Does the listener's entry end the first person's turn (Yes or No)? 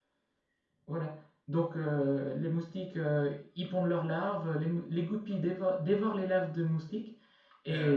No